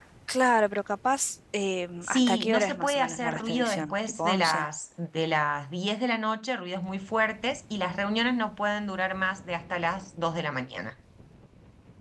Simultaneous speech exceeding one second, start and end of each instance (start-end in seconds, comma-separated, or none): 2.0-4.7